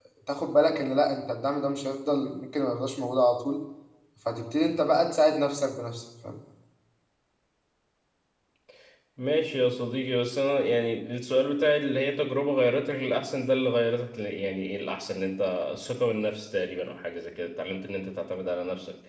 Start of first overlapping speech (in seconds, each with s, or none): none